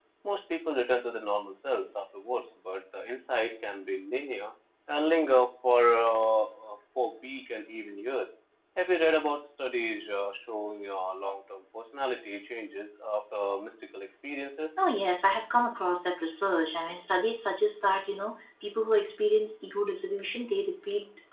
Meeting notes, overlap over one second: none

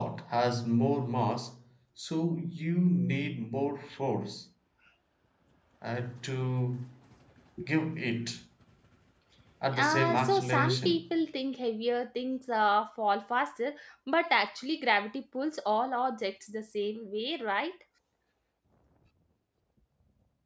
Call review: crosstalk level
present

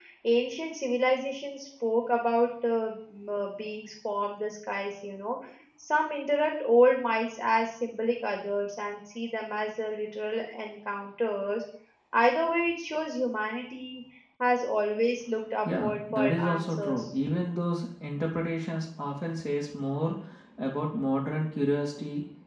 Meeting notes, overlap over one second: present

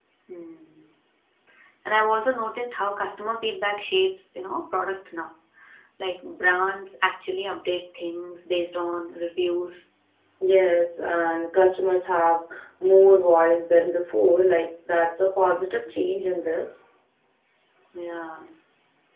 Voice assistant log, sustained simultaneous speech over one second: none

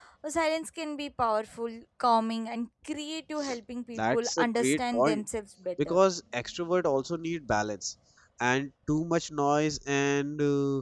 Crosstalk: present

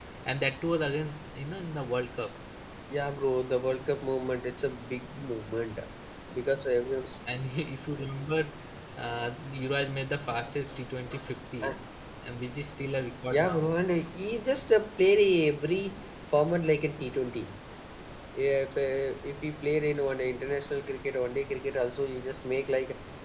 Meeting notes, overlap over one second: none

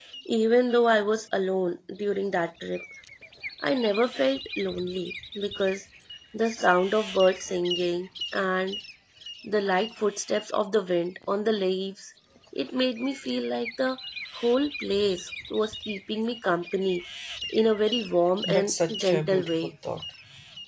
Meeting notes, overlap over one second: present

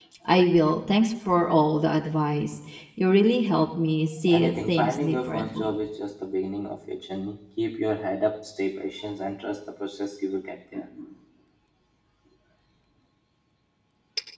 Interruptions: present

